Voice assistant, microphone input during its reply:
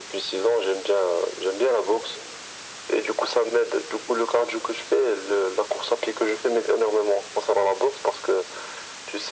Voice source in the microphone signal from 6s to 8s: echo only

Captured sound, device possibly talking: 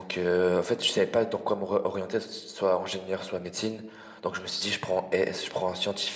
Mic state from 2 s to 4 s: echo only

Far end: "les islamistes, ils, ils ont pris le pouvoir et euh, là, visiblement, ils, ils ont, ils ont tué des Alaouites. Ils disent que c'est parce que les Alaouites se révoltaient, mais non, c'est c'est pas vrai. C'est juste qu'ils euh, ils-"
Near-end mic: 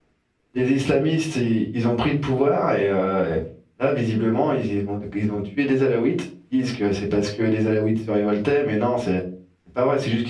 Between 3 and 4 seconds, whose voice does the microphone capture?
echo only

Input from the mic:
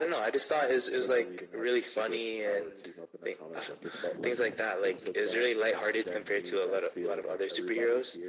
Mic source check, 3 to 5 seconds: echo only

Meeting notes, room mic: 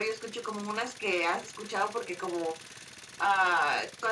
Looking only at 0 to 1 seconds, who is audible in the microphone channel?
echo only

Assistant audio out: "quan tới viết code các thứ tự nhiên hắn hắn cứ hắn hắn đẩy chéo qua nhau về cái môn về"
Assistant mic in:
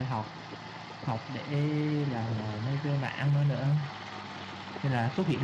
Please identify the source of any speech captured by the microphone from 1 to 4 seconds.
user only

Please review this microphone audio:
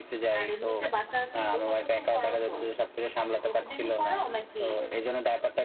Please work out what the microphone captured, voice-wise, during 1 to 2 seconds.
both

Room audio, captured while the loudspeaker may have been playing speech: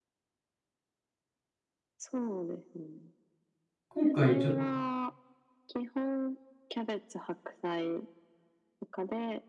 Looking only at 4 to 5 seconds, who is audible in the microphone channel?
both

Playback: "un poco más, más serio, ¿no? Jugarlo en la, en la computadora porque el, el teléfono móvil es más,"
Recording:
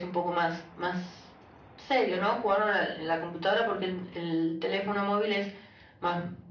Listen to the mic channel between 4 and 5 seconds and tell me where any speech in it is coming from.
echo only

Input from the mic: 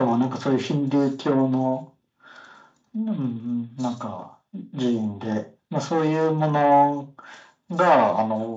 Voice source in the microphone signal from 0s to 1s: echo only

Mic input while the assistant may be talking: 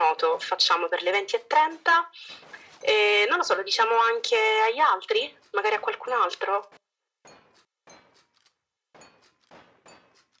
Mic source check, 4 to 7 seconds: echo only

